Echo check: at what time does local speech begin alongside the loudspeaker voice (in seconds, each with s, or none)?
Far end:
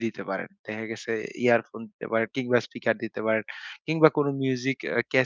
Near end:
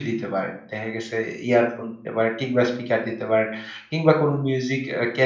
none